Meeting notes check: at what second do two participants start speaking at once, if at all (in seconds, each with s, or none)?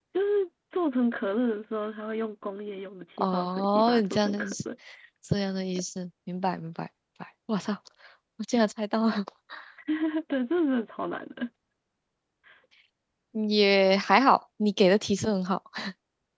3.2 s